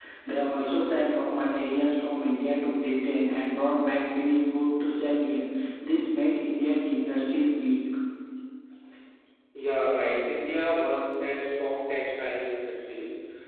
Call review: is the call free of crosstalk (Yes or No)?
Yes